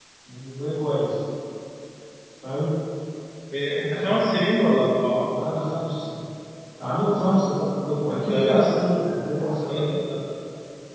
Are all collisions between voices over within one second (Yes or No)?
Yes